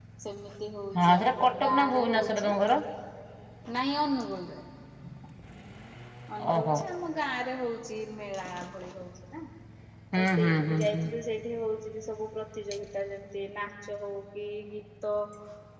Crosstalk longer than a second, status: present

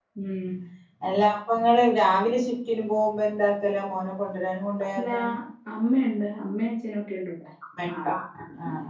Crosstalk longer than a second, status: none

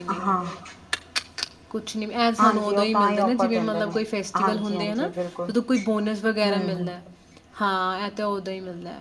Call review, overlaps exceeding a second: present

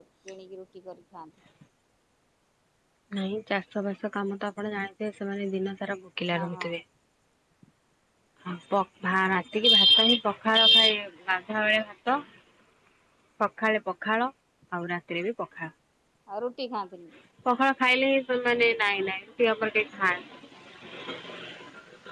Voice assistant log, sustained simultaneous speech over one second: none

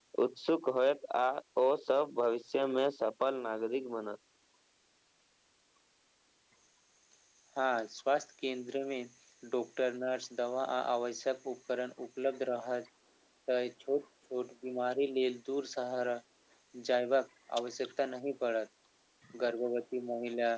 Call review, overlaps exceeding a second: none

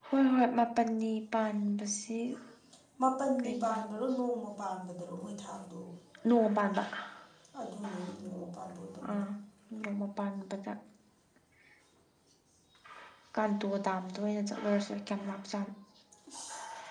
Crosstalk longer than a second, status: none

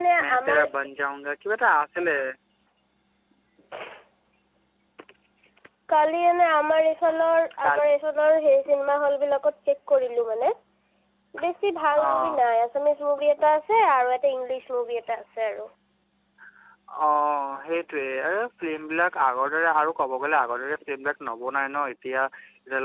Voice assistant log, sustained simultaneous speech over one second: none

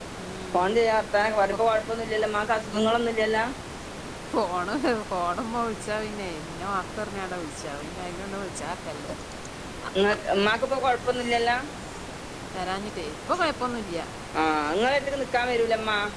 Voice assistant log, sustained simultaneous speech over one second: none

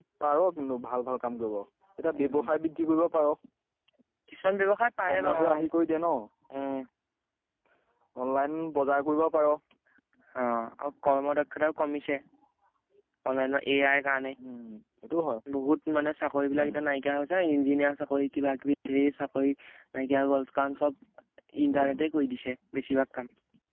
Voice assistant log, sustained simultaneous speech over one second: none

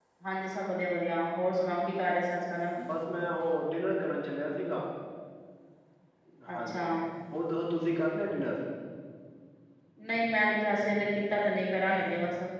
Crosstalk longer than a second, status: none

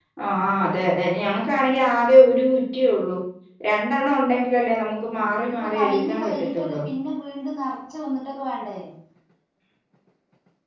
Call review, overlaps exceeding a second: present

